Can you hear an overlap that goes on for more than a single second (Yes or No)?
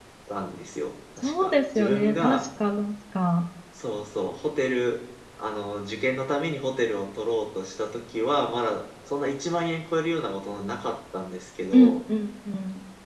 Yes